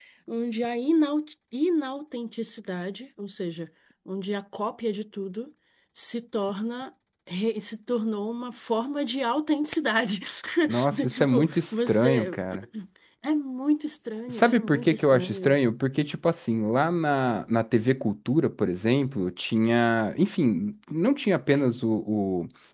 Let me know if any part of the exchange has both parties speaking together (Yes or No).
Yes